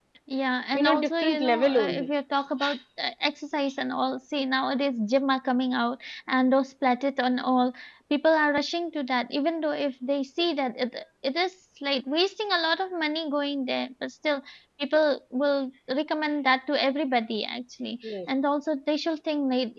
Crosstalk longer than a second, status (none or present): present